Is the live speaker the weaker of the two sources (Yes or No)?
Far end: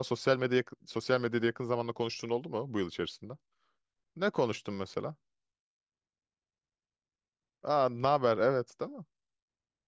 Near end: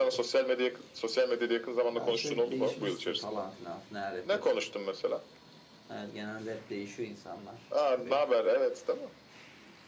Yes